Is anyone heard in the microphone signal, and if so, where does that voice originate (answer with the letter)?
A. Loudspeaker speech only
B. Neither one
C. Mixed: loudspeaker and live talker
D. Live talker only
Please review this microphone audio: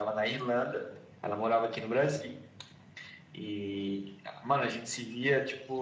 A